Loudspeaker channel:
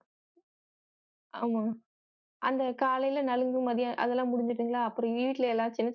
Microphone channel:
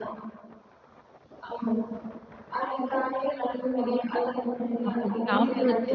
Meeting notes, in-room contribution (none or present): present